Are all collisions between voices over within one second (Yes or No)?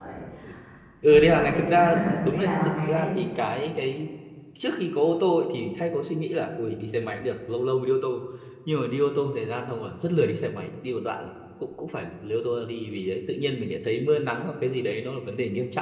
No